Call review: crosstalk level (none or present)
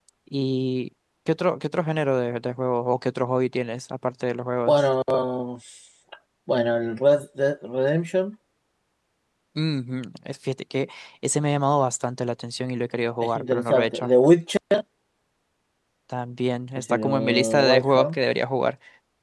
present